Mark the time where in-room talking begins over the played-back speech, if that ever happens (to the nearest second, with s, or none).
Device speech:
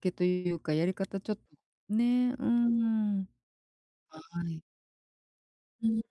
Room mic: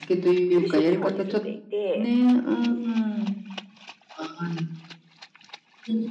1 s